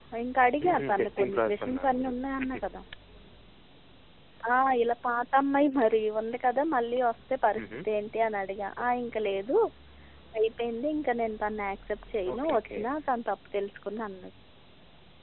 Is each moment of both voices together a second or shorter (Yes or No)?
No